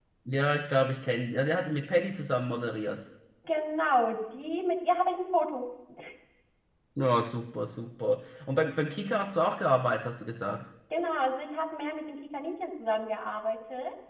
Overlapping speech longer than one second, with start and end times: none

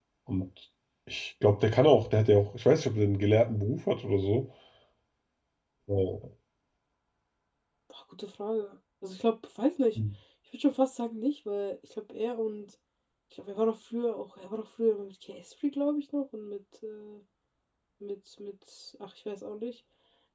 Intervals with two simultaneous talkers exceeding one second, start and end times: none

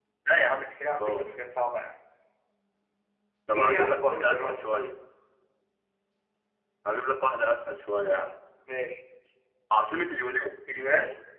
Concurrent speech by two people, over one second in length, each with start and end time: 3.5-4.8

